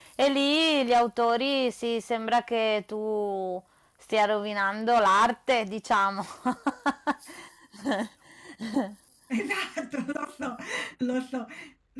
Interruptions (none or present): none